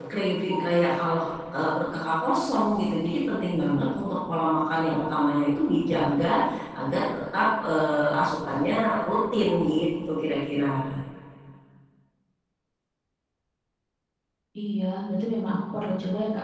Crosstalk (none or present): none